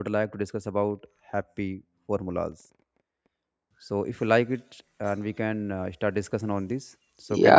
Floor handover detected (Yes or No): Yes